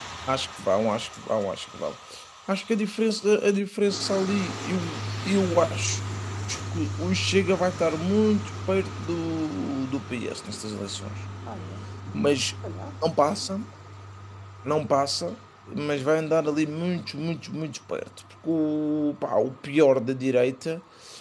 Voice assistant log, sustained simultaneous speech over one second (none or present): none